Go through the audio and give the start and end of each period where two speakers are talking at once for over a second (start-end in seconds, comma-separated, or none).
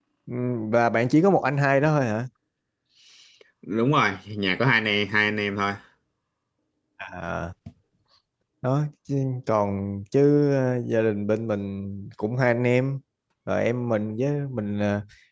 none